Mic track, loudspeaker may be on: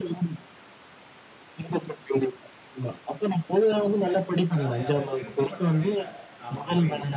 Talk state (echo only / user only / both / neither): both